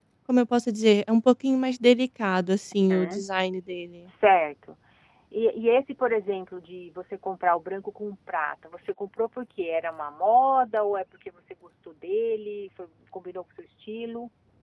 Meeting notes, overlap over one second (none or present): none